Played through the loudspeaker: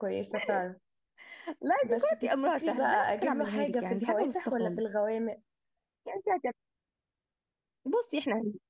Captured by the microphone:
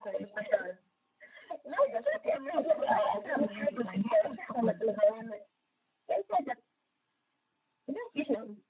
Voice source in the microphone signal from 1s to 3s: echo only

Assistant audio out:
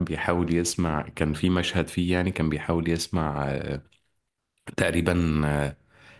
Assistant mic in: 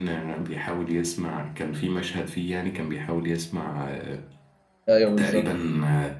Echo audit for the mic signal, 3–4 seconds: echo only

